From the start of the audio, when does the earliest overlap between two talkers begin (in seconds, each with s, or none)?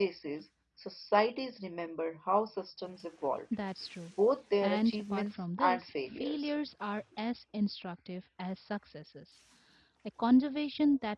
4.6 s